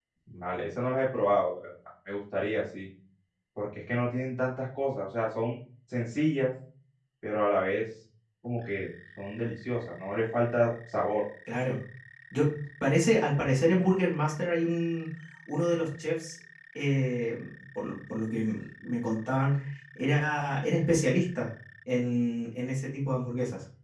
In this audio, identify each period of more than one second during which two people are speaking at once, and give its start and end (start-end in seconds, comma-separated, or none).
none